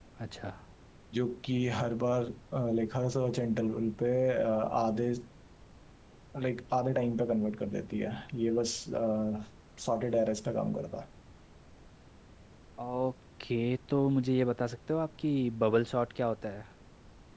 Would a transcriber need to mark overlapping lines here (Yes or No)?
No